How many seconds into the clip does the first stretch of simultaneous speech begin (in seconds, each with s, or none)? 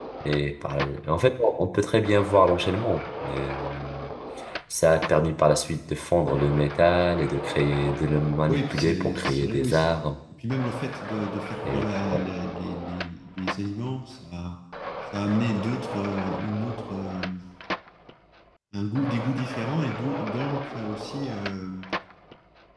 8.5 s